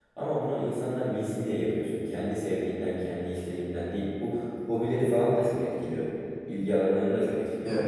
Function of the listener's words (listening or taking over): taking over